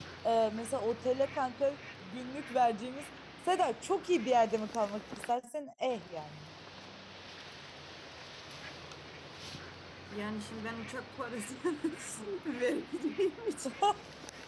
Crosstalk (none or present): none